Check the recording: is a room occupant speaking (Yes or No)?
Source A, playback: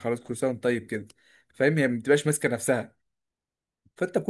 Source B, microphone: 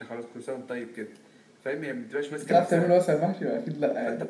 Yes